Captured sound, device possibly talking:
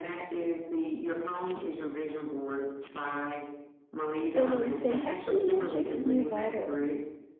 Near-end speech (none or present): present